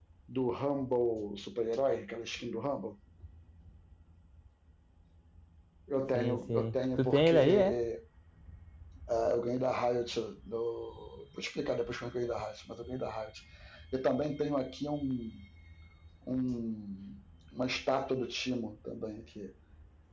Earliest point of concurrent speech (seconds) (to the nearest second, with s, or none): 6 s